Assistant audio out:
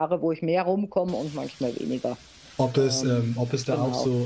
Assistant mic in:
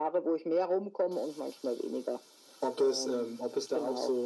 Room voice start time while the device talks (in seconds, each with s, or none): none